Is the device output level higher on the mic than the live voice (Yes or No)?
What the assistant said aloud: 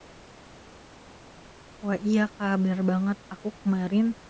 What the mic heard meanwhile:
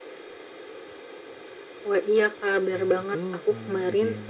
Yes